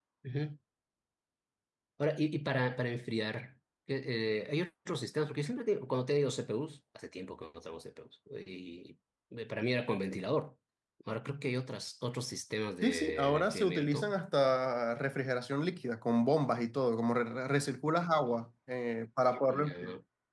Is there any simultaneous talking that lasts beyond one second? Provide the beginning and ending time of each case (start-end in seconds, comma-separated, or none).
12.8-14.1